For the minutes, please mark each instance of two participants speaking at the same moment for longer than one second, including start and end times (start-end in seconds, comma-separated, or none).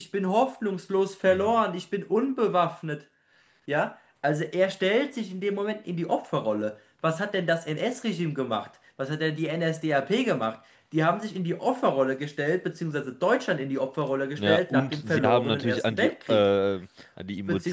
14.4-16.4